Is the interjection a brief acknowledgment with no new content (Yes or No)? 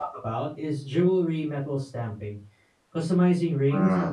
Yes